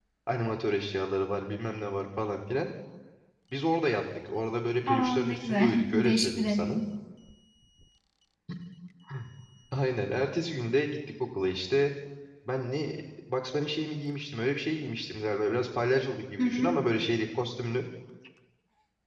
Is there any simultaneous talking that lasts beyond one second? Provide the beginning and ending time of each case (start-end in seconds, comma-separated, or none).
4.9-6.8